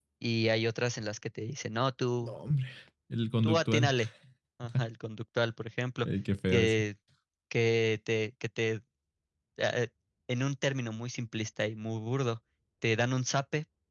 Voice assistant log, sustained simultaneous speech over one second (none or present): none